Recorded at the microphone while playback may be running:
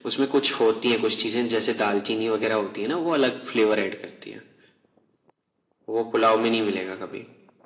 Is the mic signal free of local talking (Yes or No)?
Yes